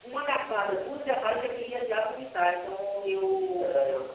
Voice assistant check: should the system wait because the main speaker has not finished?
No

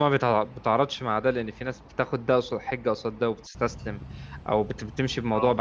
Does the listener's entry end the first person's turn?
No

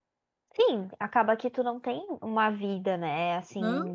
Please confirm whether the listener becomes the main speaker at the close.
No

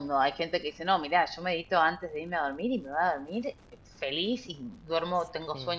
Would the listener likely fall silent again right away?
Yes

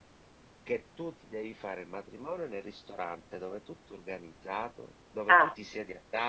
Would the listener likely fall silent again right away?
Yes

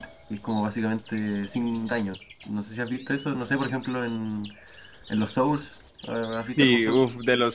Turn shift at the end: Yes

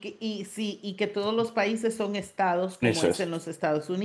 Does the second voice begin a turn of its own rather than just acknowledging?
No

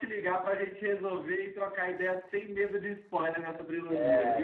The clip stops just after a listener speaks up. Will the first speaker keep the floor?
No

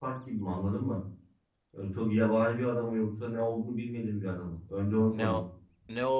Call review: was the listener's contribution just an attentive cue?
No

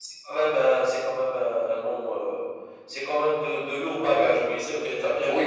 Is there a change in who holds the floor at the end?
Yes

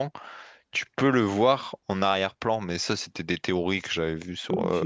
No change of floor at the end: No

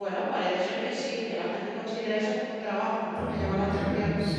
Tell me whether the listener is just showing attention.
No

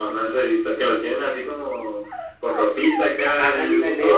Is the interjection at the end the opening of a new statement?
Yes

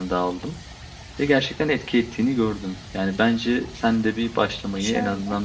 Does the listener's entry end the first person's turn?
Yes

